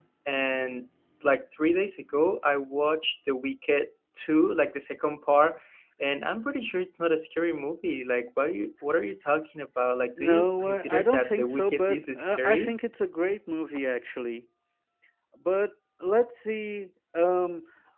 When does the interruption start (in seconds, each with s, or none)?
10.2 s